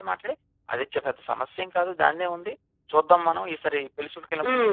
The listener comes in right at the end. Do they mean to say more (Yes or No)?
Yes